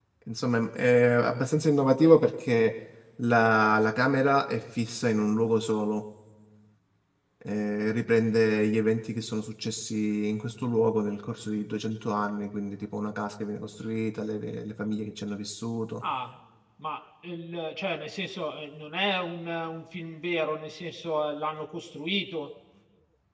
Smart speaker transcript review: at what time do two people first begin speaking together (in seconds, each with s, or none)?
none